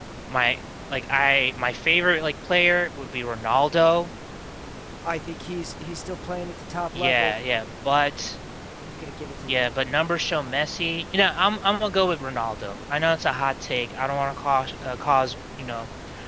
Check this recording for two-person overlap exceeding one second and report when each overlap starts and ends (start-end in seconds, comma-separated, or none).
none